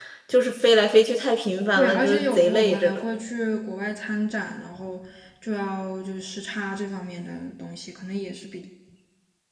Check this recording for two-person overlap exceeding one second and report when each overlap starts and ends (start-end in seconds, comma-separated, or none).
1.8-3.0